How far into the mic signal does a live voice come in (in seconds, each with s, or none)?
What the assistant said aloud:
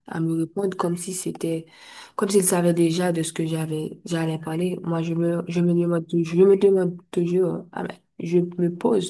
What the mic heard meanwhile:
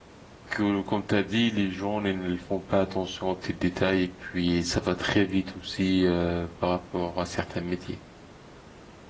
0.5 s